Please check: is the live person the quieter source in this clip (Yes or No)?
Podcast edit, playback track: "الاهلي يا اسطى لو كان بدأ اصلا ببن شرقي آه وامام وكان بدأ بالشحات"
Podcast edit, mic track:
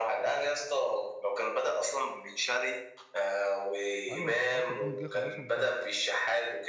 Yes